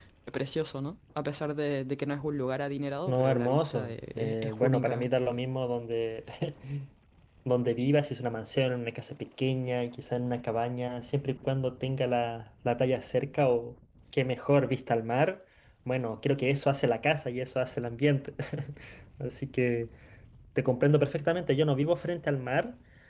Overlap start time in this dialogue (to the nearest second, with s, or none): 3 s